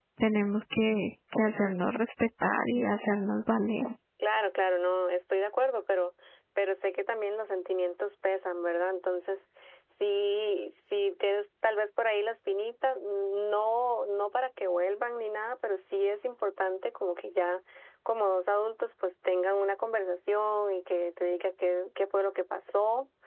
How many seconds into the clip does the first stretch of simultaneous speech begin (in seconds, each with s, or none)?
none